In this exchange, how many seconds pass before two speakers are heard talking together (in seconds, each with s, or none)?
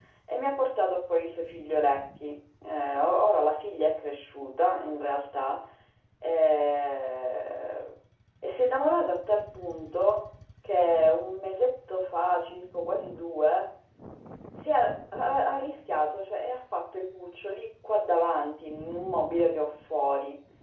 none